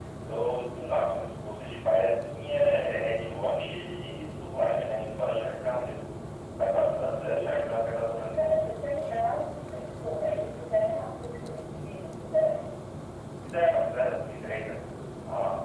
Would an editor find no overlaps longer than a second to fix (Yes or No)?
Yes